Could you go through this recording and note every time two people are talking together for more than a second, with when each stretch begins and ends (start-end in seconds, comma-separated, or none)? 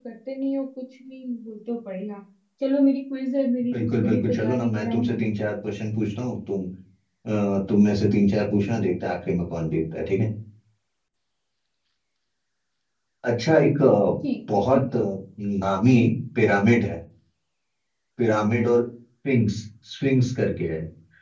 3.7-5.3